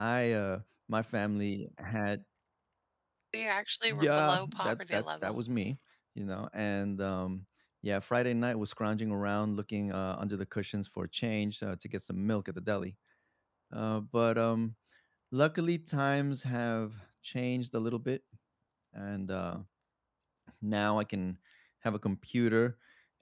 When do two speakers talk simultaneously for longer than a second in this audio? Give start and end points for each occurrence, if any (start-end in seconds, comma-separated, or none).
3.9-5.3